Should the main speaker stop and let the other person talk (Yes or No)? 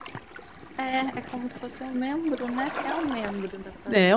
Yes